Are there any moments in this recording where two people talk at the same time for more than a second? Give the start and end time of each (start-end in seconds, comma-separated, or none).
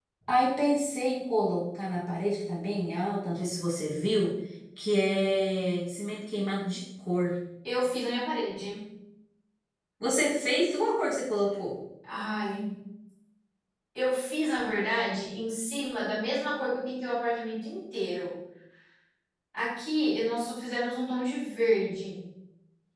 none